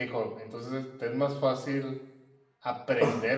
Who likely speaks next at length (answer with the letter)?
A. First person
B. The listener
A